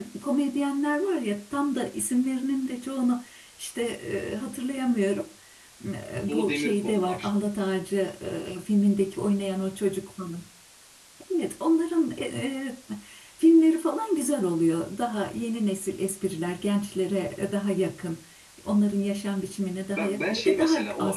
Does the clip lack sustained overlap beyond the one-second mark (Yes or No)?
No